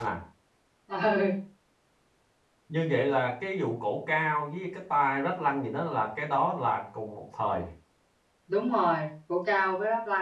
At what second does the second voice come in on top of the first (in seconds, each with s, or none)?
none